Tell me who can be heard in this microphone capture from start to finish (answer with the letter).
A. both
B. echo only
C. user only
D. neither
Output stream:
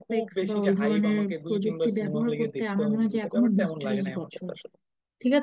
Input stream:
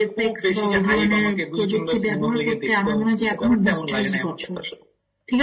B